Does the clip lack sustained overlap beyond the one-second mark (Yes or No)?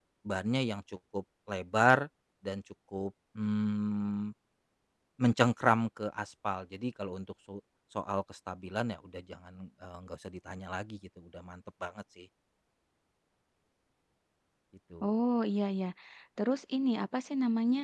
Yes